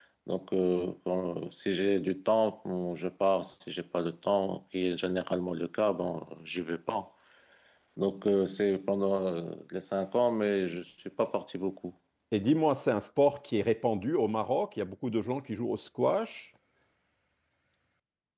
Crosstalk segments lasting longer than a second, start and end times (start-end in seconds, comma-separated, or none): none